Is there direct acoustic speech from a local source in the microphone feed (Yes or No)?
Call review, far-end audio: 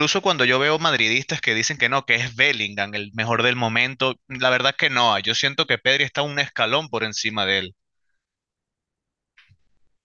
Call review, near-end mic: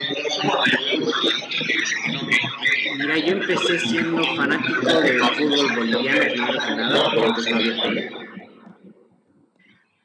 Yes